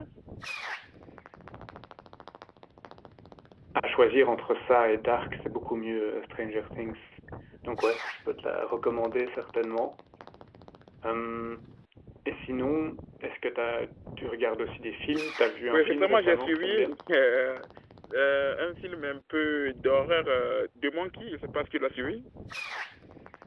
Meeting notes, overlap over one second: present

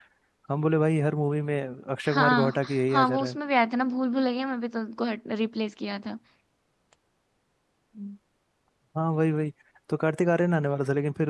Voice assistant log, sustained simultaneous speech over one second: present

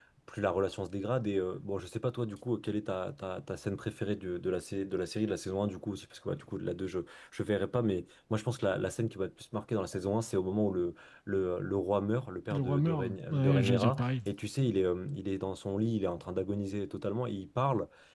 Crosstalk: present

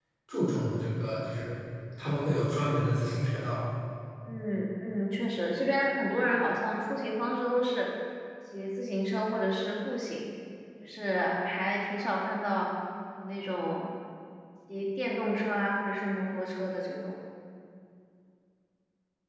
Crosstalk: none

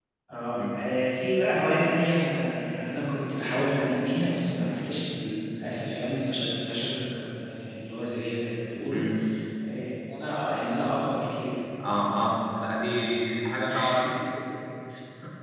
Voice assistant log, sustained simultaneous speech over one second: none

